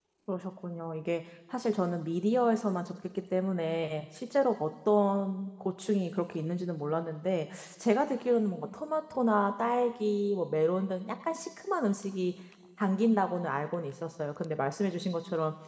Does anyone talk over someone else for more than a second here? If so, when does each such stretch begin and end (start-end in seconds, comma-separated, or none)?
none